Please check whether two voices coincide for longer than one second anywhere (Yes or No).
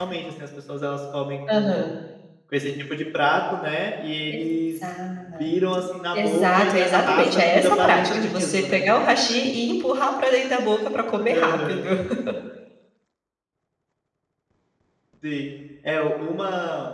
Yes